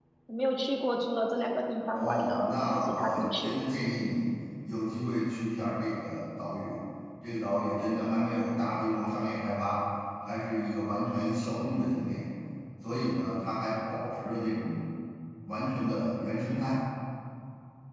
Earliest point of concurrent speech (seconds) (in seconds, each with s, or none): 1.9 s